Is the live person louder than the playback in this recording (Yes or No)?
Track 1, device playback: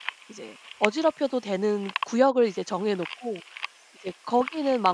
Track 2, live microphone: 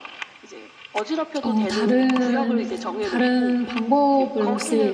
Yes